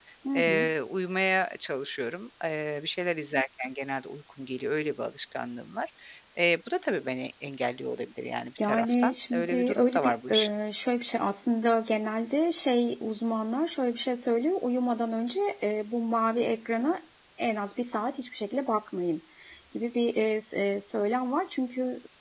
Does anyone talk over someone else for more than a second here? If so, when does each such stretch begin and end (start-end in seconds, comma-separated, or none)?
8.6-10.5